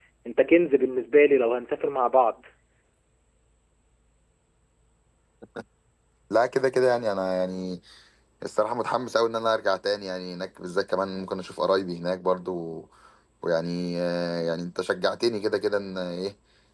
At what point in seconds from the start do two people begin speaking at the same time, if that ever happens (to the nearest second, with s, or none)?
none